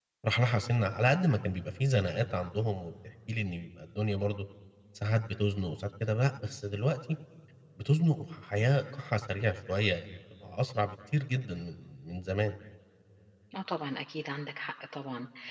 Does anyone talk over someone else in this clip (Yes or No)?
No